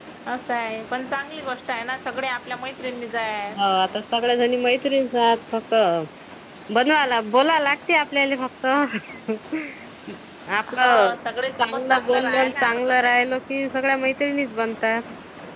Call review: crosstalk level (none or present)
present